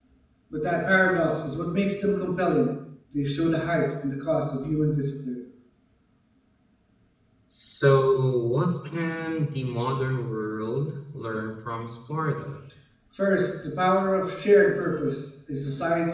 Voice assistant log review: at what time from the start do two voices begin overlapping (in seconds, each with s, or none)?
none